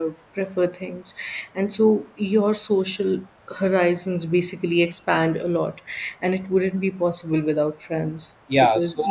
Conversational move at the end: taking over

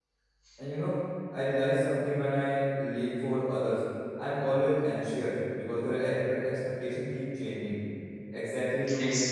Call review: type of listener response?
listening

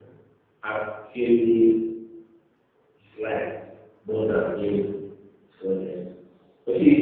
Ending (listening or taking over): listening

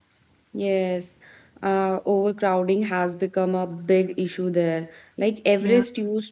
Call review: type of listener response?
listening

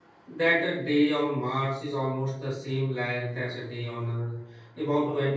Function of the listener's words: listening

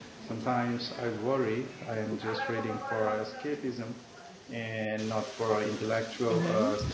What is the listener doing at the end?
taking over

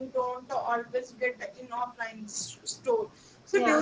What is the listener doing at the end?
listening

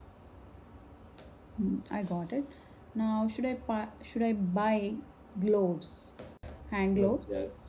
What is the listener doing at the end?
taking over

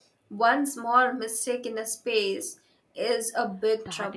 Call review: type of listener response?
taking over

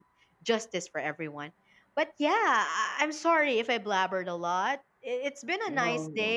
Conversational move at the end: listening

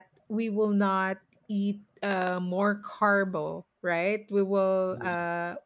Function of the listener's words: listening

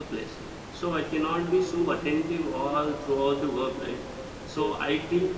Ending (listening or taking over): listening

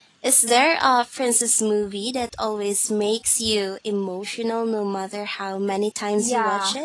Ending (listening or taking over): taking over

